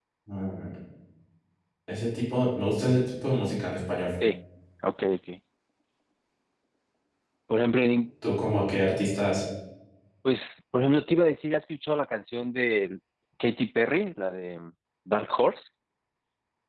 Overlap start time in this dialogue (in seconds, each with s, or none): none